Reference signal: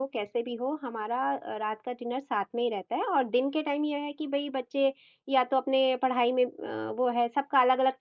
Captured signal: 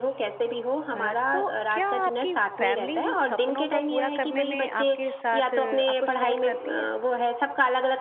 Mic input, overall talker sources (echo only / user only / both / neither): both